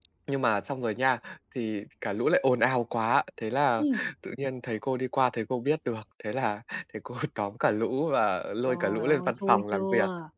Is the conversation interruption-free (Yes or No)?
No